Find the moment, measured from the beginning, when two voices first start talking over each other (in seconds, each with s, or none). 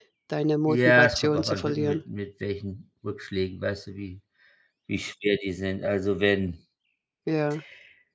0.7 s